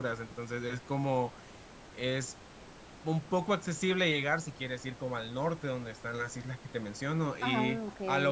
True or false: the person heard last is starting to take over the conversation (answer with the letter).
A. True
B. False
B